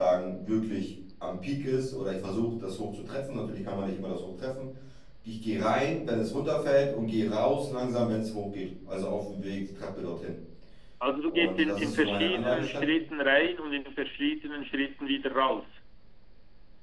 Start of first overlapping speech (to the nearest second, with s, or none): 11 s